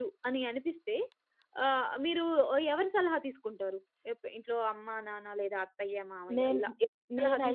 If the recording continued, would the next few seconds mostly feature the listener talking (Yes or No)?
Yes